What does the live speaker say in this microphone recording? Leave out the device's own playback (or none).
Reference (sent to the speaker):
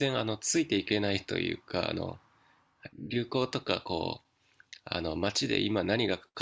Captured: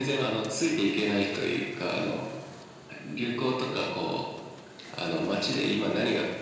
none